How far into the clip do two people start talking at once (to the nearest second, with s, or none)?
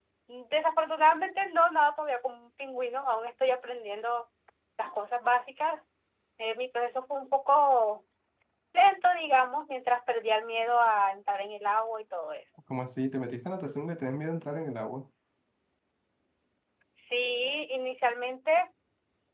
none